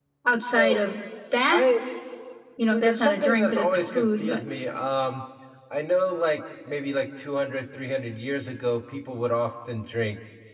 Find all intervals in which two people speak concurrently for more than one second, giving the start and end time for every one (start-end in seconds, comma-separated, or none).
2.6-4.4